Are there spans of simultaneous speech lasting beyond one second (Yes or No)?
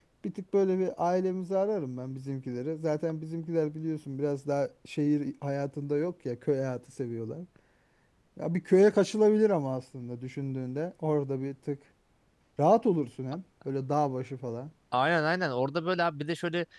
No